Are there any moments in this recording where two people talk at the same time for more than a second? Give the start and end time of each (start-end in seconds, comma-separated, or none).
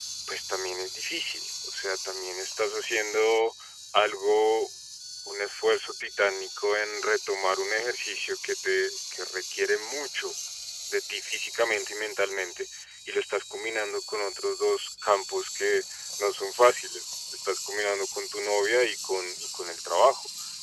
none